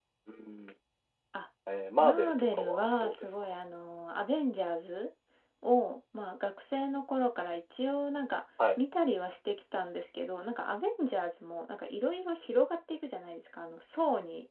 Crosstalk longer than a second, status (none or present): present